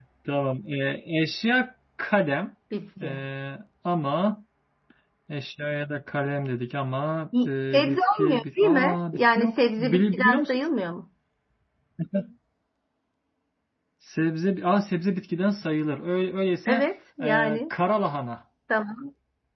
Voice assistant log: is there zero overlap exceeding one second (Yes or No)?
No